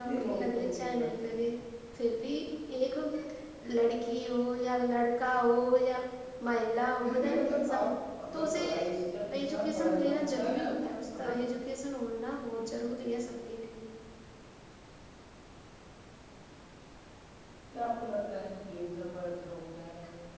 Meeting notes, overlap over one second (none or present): present